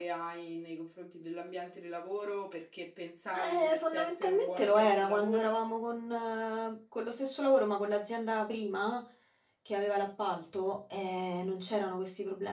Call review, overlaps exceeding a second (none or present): present